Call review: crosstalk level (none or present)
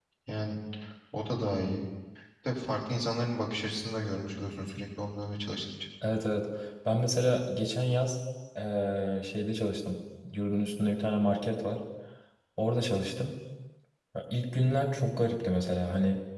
none